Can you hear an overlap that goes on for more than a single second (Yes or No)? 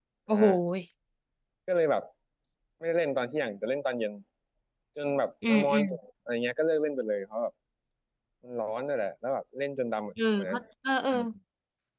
No